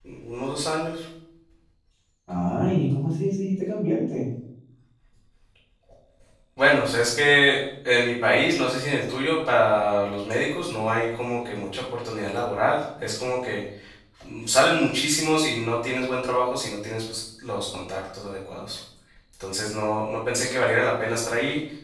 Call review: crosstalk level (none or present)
none